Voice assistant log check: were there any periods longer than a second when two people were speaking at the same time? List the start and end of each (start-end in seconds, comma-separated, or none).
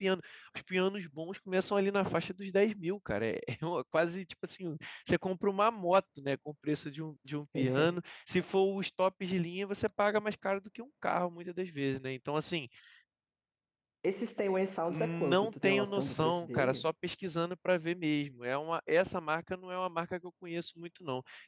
14.9-16.9